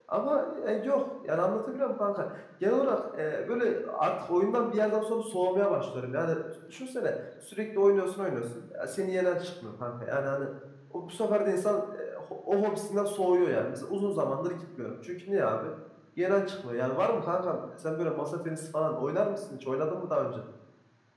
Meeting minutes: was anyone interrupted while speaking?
No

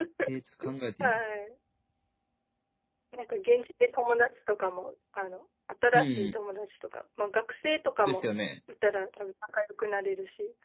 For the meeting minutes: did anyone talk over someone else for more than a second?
No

